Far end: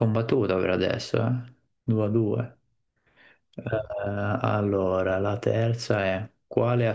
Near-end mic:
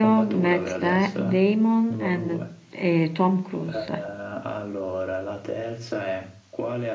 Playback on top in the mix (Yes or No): No